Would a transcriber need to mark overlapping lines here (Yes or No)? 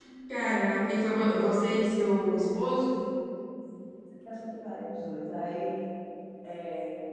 No